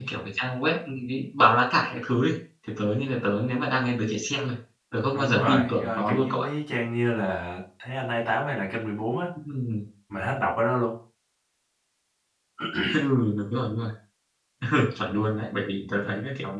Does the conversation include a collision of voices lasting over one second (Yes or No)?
Yes